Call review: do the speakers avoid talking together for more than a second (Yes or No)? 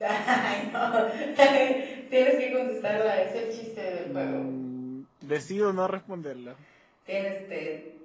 Yes